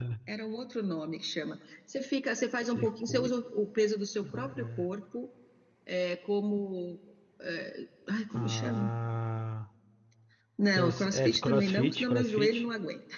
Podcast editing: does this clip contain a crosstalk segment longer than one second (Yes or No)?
Yes